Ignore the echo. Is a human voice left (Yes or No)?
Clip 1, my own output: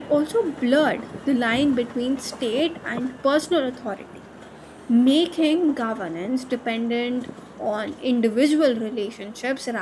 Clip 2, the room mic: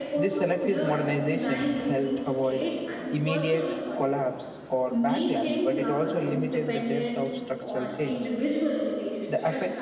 Yes